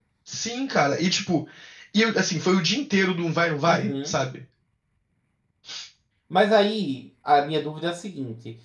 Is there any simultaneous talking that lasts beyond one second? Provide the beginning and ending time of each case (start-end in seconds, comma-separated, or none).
none